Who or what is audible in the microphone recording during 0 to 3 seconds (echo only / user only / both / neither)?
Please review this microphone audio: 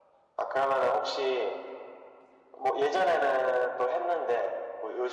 echo only